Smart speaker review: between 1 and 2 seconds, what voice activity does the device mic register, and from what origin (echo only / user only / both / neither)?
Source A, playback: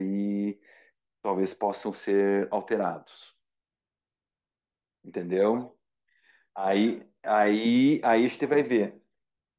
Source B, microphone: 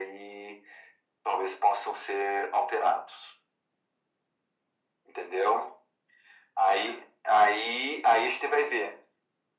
echo only